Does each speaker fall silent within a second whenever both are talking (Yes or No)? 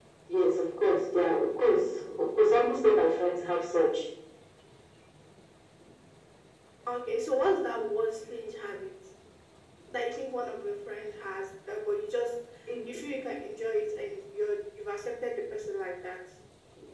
Yes